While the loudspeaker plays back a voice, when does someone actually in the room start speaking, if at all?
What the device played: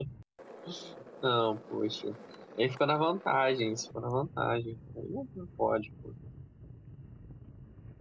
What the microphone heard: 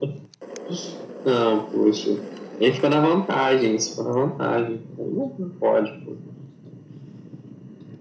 none

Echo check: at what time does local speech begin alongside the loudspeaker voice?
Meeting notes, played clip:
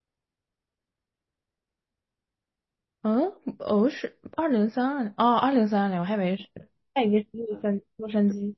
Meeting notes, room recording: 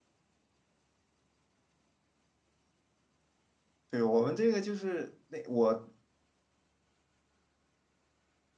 4 s

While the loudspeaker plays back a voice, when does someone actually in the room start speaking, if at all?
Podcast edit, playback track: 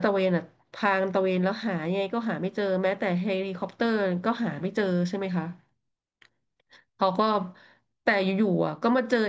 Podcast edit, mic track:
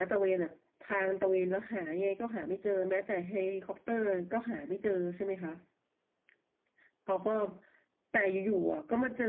none

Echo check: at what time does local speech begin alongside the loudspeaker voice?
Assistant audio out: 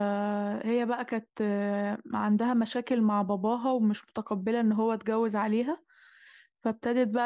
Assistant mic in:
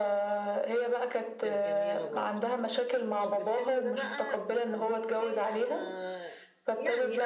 1 s

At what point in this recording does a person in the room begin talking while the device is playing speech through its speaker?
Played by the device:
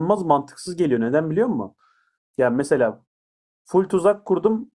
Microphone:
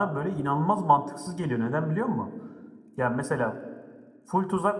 none

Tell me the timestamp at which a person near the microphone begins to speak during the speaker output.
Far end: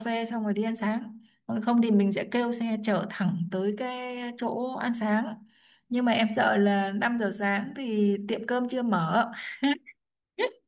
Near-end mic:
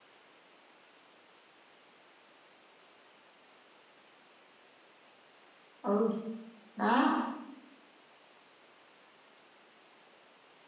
6 s

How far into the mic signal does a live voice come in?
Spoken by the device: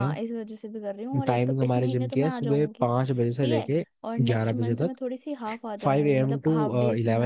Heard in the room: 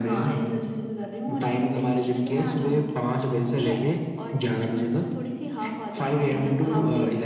none

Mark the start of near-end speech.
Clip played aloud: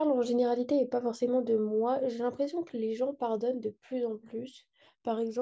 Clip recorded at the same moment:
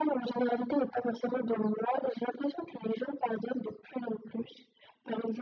none

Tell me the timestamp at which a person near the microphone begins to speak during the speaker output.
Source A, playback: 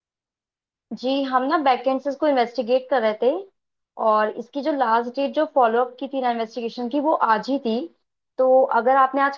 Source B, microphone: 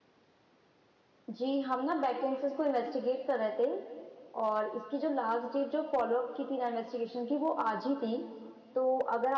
none

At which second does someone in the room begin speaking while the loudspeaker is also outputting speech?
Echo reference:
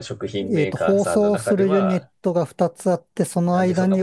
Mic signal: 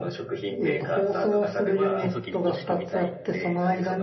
2 s

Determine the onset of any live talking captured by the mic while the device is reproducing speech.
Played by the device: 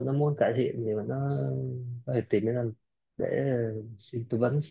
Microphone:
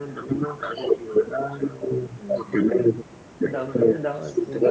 2 s

